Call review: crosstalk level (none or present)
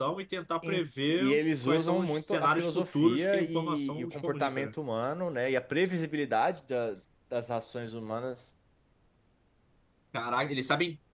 present